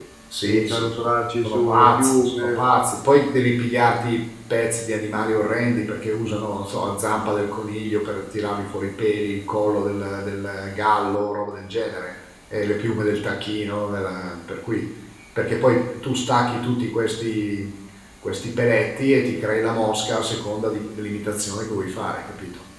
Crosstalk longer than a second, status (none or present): present